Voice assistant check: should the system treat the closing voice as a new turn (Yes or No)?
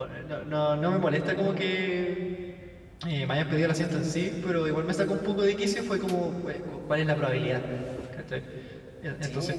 Yes